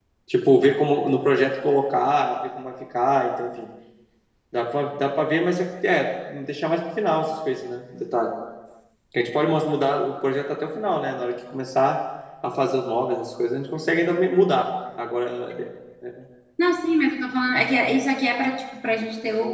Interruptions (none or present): none